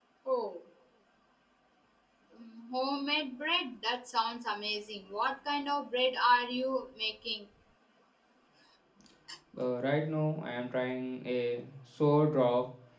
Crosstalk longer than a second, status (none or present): none